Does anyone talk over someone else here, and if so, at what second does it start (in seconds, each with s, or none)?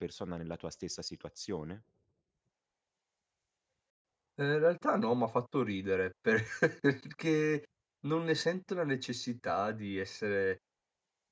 none